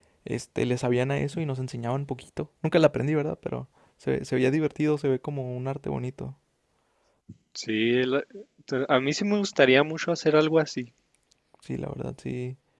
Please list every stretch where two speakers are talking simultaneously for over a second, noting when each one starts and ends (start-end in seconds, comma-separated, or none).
none